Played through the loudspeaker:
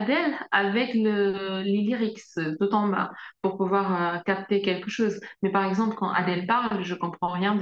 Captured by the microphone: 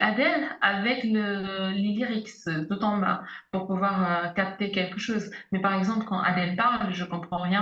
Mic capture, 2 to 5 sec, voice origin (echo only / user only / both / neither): echo only